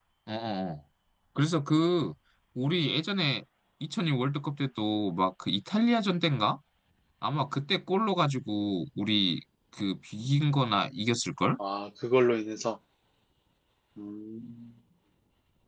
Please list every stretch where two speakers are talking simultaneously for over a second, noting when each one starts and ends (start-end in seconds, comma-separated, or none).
none